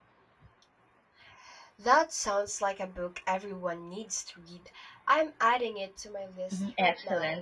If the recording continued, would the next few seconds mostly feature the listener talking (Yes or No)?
Yes